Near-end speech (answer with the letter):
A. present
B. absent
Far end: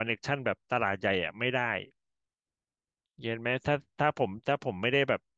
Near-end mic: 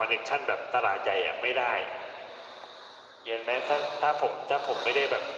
B